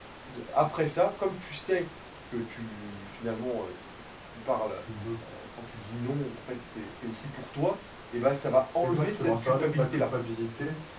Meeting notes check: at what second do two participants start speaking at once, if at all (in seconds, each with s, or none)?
8.8 s